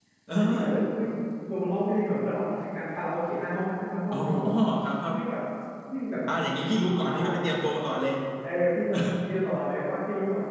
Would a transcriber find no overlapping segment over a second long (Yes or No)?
Yes